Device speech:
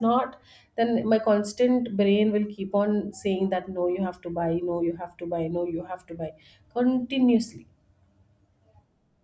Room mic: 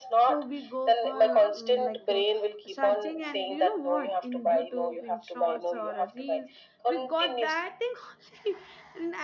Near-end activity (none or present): present